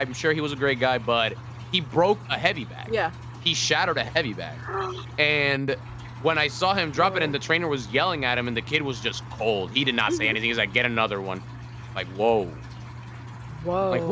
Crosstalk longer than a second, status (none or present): none